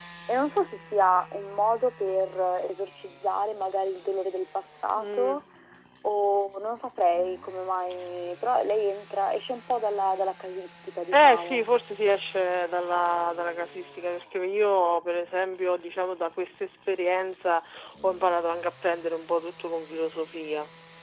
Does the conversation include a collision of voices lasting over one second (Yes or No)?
No